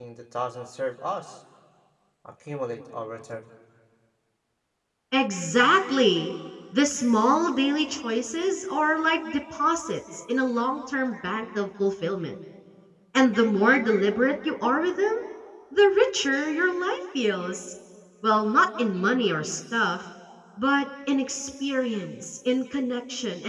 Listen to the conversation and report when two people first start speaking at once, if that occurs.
none

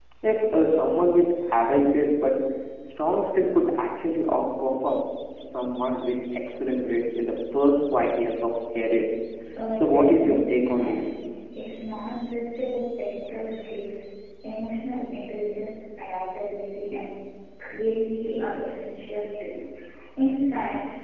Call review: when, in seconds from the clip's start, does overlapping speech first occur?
9.7 s

